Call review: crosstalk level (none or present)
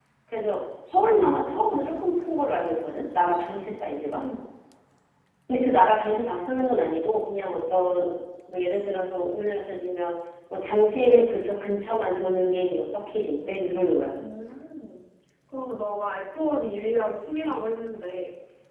none